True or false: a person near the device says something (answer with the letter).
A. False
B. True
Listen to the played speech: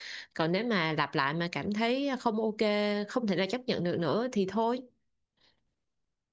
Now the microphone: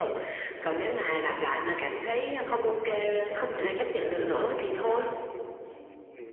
B